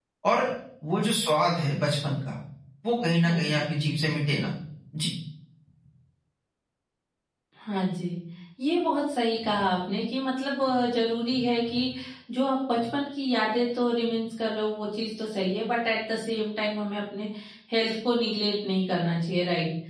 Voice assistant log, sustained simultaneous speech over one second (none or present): none